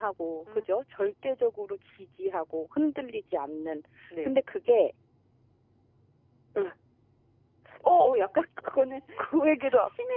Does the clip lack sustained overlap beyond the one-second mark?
Yes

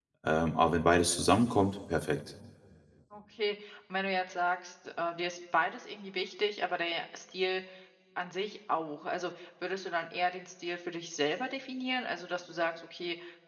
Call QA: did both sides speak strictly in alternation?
Yes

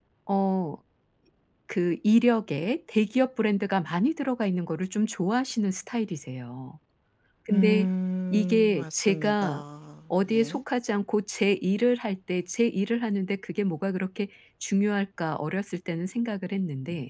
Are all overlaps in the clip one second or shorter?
No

